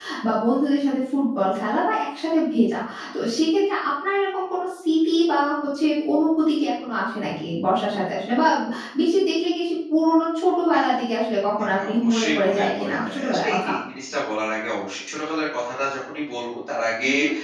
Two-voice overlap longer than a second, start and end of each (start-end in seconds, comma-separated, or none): 11.6-13.7